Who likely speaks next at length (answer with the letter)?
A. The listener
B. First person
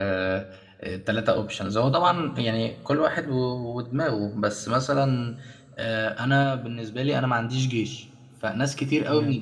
B